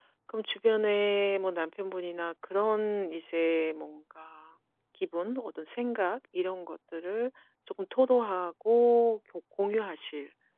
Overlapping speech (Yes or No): No